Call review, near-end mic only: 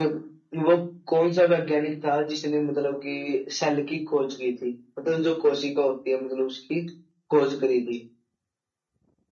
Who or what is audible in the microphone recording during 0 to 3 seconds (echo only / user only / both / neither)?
echo only